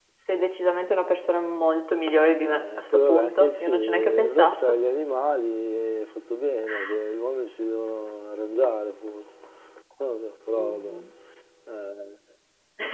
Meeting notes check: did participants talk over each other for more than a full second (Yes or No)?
Yes